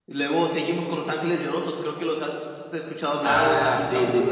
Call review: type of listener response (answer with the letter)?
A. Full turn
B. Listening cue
A